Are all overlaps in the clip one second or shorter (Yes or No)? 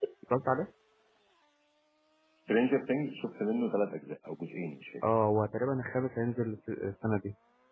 Yes